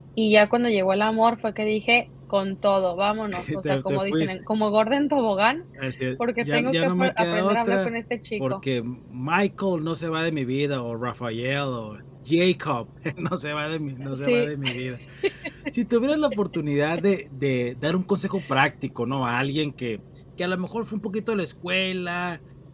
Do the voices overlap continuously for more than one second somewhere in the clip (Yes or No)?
Yes